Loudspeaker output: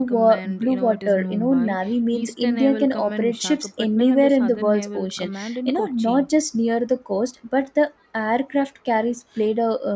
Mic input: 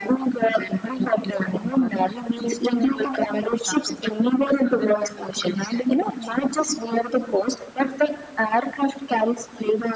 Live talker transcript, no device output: none

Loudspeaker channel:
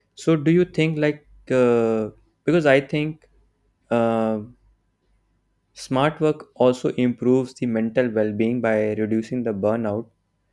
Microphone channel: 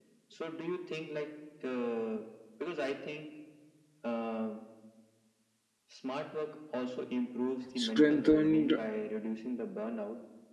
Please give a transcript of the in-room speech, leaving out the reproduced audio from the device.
strengthened

